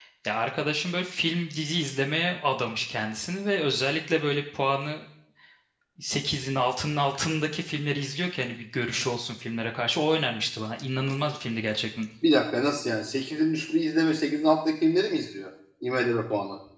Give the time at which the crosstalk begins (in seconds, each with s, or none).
none